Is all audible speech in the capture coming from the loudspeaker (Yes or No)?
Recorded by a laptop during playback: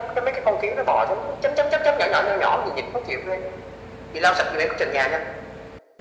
Yes